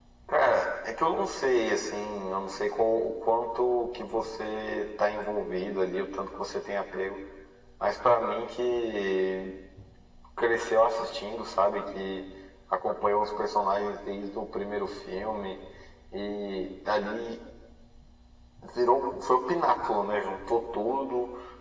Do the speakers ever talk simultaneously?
No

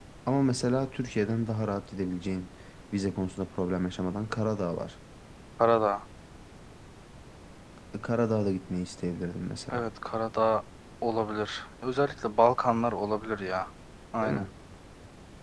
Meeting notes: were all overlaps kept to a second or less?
Yes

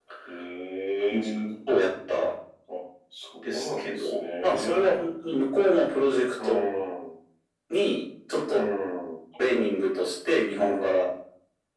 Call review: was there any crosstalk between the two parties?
Yes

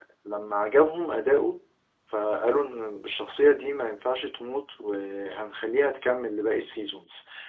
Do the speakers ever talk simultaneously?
No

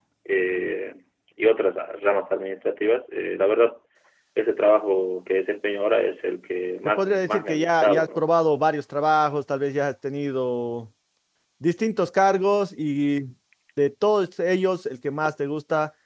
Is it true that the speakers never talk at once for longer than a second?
No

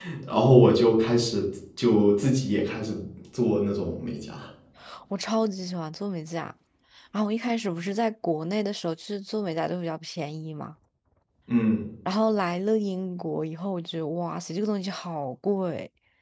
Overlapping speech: No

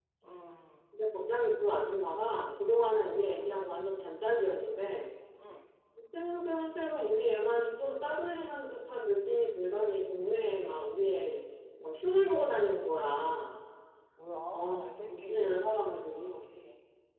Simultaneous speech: Yes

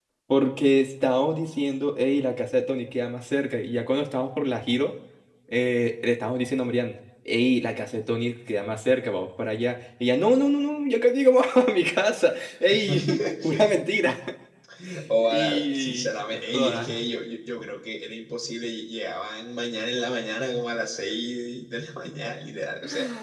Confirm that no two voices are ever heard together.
No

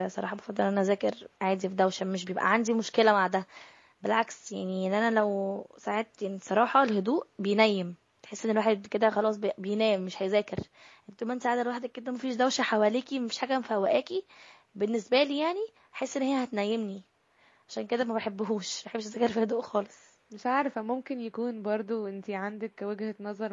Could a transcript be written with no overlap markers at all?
Yes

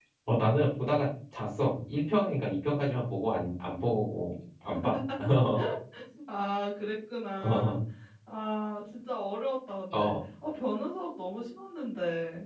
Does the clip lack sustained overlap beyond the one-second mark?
Yes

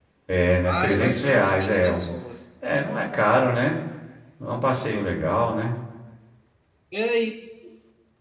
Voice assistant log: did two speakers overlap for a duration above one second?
Yes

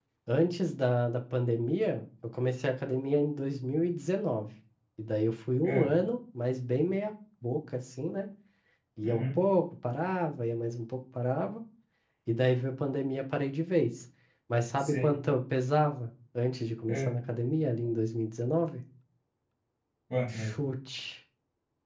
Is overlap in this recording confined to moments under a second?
Yes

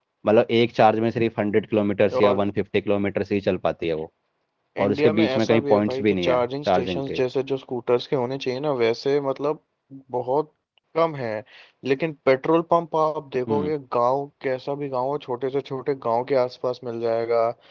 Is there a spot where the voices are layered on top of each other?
Yes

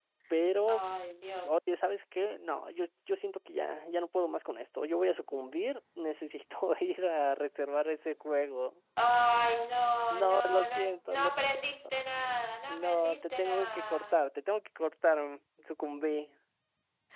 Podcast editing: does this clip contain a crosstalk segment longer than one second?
Yes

